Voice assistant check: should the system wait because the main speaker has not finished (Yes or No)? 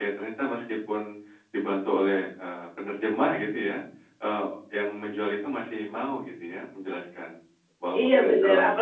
No